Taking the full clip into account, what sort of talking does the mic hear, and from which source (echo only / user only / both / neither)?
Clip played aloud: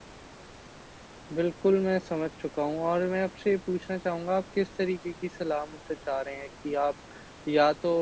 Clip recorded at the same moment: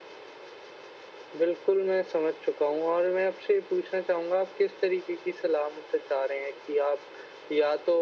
echo only